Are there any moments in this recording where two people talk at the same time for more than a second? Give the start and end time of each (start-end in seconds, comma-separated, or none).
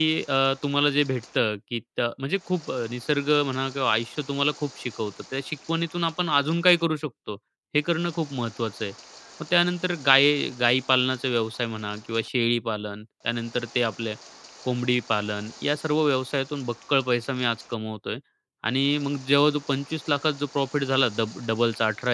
none